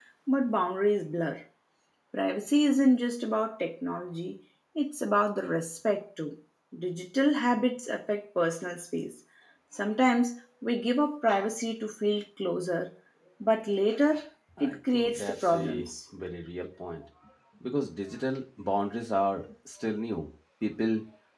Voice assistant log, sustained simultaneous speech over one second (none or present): present